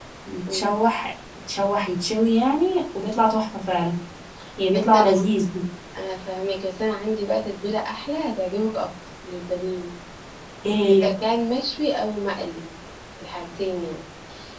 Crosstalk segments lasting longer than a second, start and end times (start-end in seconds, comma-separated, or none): none